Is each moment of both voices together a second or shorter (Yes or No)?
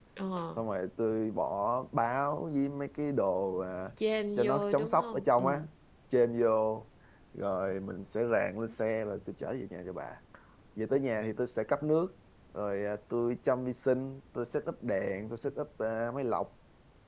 No